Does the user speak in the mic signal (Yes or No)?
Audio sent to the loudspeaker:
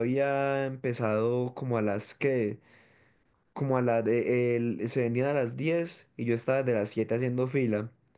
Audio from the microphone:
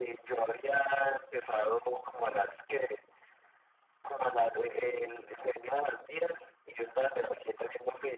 No